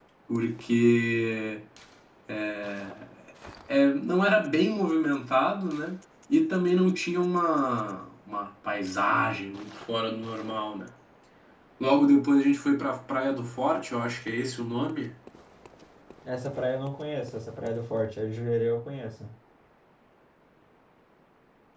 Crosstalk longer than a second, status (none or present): none